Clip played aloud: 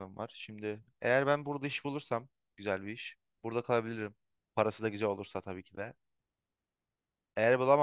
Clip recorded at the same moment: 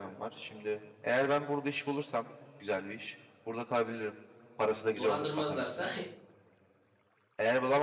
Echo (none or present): present